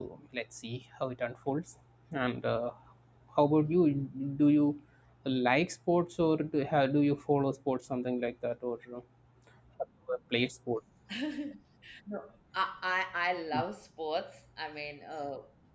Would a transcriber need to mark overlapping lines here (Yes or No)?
No